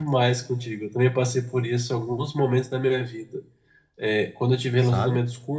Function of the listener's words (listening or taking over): listening